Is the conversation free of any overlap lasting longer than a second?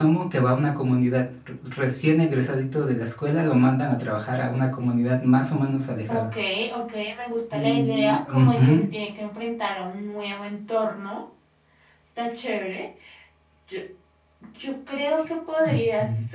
No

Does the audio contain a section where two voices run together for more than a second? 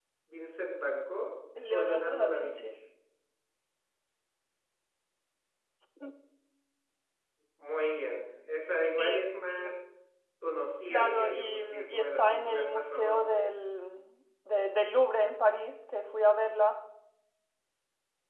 Yes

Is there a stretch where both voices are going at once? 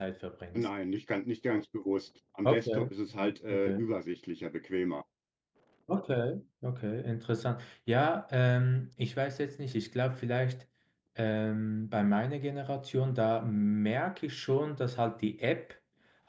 Yes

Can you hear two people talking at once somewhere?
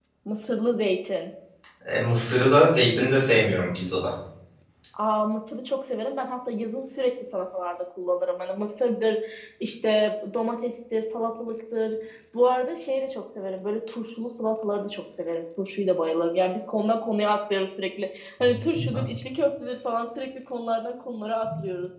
No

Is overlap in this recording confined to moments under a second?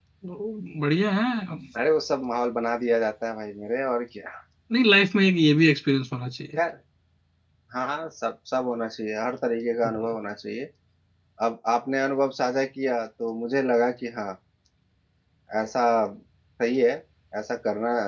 Yes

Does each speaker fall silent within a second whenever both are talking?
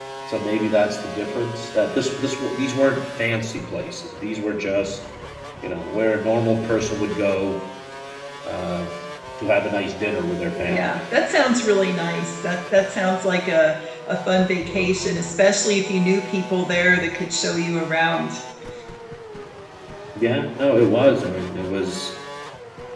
Yes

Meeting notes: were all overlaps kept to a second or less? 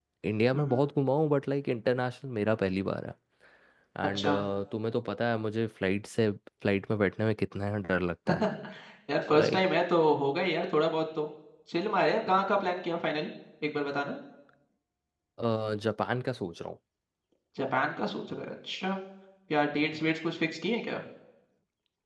Yes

